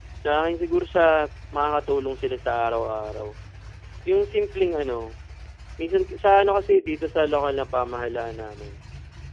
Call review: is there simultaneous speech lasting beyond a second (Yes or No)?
No